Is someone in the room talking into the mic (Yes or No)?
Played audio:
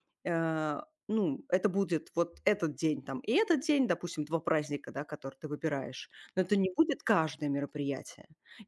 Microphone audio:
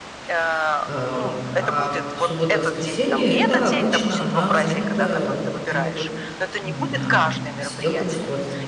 Yes